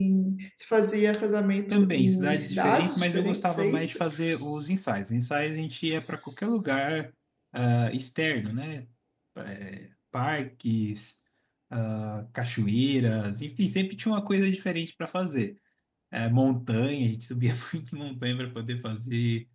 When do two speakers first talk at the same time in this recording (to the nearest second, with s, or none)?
2 s